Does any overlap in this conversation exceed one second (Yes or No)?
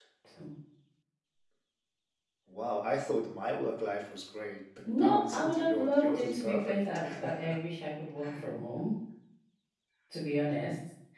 Yes